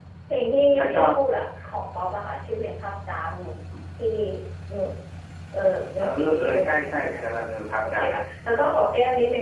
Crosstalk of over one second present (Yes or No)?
Yes